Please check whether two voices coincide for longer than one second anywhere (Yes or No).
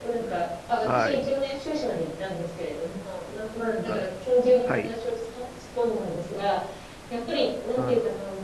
No